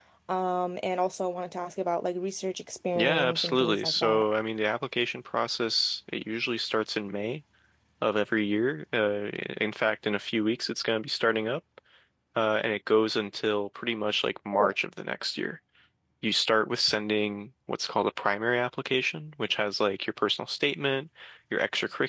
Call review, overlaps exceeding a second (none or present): present